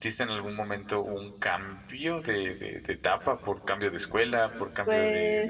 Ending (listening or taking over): listening